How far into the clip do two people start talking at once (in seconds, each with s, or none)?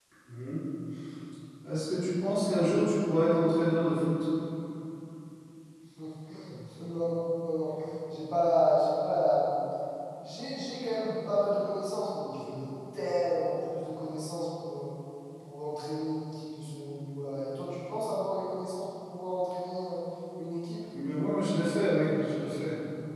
none